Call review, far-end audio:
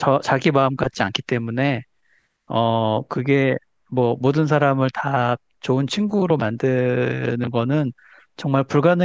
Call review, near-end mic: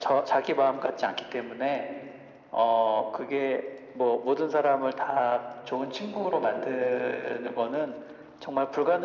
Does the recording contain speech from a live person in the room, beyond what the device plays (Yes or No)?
No